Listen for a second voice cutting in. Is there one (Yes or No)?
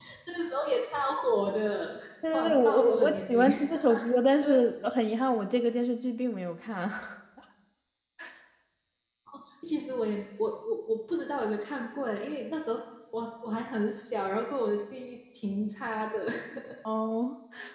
Yes